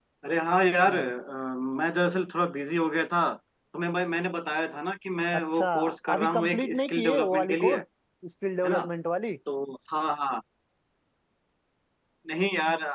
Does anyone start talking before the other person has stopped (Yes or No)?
Yes